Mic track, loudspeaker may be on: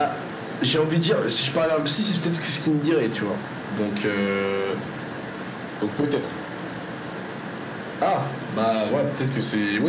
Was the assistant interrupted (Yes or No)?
No